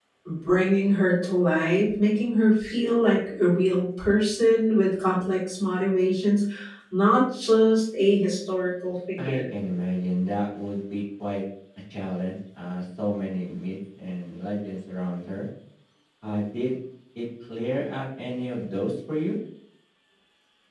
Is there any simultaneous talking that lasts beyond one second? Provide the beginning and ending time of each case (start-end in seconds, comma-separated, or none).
none